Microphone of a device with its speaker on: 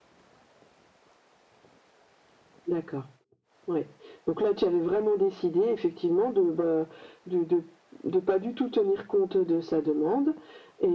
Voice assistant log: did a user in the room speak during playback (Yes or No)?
No